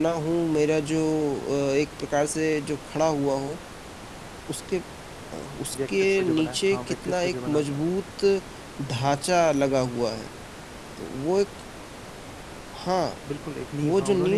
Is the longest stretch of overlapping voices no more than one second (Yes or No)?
No